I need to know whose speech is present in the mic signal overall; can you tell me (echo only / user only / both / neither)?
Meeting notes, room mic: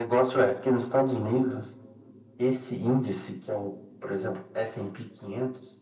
echo only